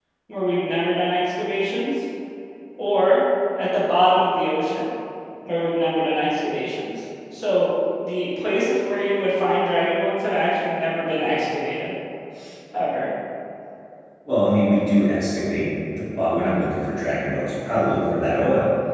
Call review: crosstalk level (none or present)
none